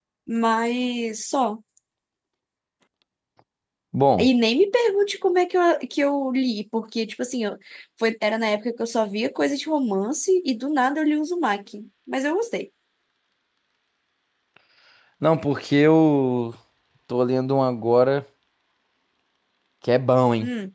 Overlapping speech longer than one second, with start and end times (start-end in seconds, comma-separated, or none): none